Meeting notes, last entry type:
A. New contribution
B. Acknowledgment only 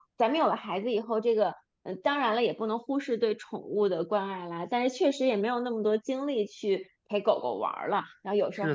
A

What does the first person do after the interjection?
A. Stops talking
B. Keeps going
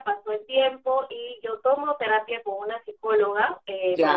B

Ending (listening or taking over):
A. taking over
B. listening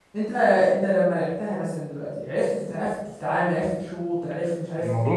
A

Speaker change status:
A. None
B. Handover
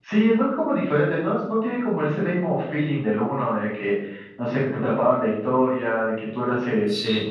A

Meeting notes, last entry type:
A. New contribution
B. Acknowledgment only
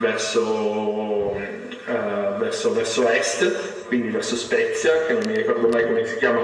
B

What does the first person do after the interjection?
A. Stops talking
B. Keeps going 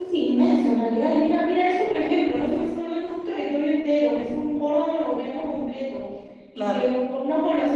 B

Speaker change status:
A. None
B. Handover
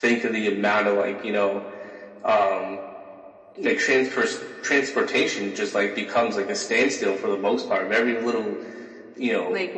A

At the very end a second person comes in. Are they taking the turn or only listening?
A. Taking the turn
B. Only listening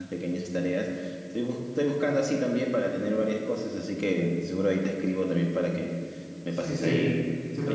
A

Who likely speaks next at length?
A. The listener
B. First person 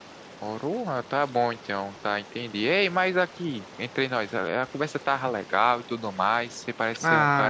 B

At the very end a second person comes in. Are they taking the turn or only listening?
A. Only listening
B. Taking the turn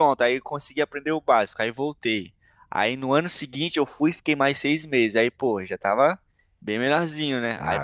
A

